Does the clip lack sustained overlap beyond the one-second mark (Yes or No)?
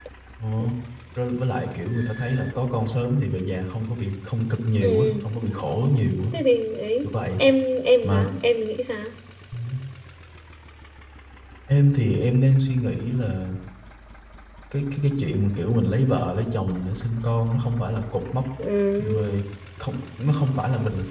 Yes